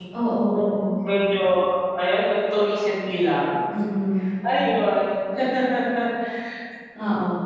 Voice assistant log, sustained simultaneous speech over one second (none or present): none